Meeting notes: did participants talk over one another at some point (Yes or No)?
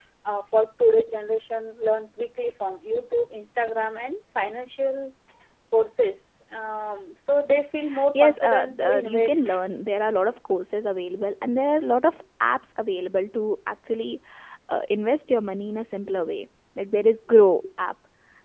Yes